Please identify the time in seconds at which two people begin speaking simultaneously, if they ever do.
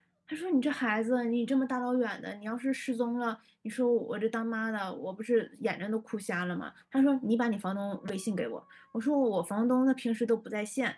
none

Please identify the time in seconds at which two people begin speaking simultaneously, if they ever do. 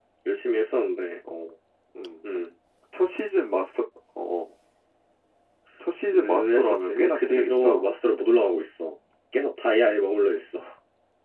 6.1 s

